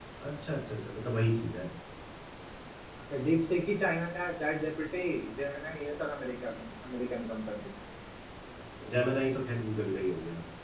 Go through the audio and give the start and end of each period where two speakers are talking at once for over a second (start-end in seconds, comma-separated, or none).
none